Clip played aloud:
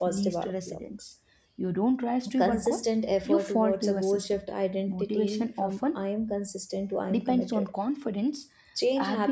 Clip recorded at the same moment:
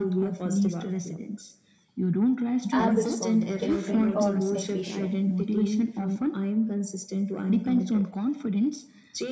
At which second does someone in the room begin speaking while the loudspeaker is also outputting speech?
2.7 s

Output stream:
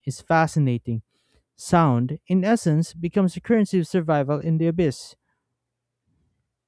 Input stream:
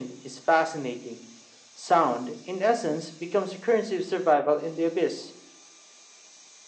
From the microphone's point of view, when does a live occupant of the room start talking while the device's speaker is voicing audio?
none

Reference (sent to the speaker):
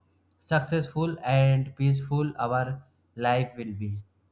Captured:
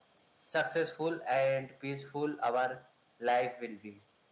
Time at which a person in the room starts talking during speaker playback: none

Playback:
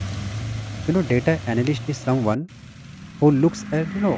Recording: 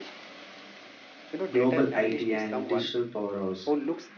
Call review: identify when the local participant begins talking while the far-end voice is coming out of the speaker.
1.5 s

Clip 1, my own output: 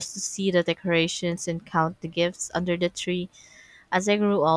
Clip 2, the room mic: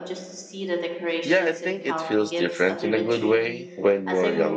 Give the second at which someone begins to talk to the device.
1.2 s

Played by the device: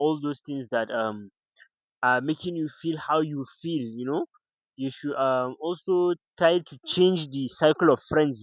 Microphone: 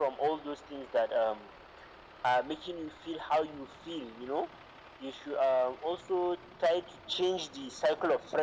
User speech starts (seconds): none

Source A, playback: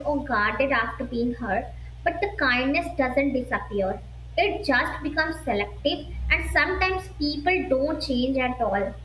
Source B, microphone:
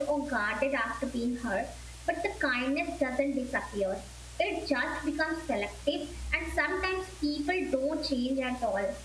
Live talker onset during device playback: none

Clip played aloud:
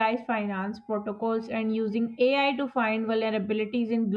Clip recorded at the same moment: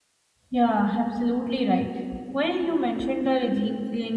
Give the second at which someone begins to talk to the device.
0.5 s

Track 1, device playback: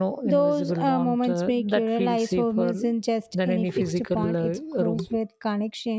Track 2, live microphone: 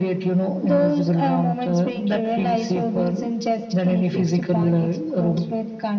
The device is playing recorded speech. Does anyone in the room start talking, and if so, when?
none

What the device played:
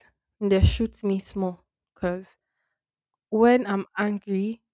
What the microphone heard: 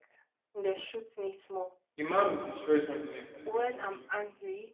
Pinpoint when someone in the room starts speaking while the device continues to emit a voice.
2.0 s

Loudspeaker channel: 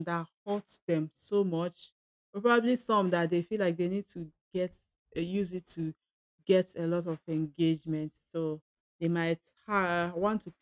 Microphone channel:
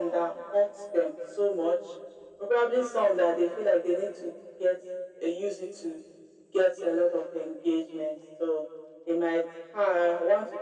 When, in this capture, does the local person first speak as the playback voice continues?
none

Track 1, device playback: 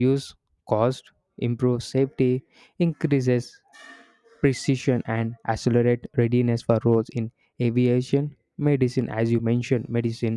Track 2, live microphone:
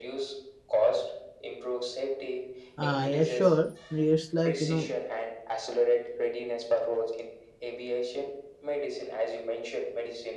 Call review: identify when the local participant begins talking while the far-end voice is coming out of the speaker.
2.8 s

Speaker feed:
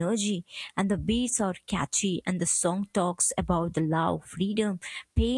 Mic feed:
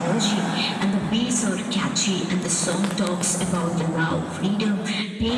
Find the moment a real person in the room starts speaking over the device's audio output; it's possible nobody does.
none

